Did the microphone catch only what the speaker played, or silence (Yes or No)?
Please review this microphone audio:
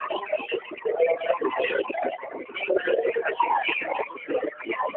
Yes